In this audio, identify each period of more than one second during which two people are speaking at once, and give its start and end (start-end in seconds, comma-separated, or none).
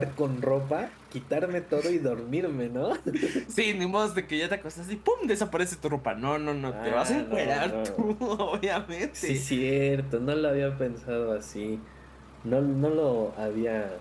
6.7-8.1